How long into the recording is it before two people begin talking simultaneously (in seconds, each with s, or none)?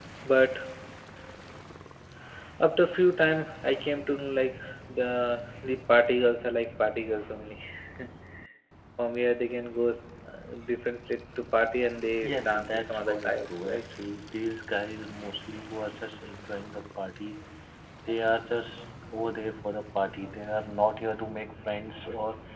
12.2 s